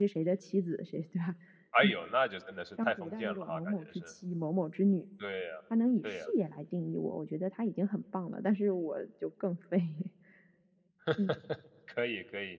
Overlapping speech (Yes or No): Yes